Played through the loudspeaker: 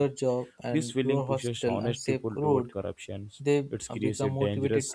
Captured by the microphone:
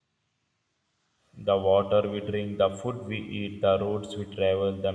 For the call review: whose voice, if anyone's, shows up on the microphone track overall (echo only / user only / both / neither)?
user only